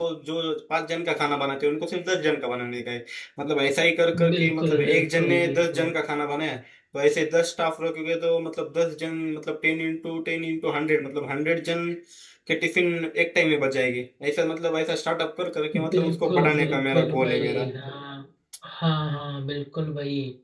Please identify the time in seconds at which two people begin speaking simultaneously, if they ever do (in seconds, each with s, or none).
4.3 s